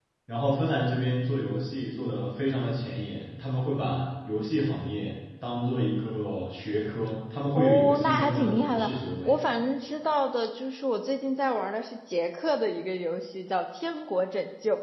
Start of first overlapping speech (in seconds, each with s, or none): 7.5 s